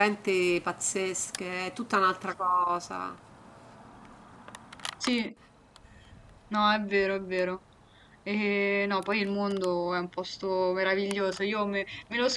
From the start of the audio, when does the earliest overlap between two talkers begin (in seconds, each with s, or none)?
none